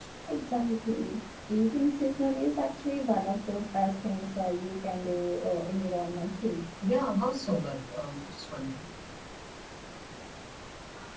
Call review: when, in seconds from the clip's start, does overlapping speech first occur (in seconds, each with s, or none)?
none